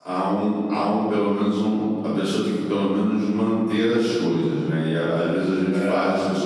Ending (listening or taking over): listening